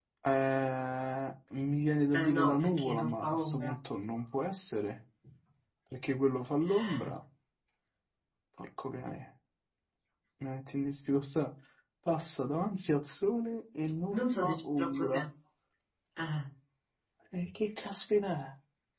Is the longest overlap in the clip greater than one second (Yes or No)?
Yes